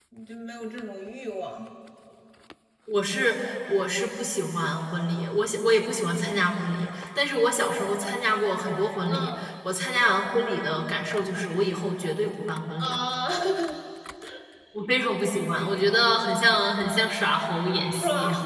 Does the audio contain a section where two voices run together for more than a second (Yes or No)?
No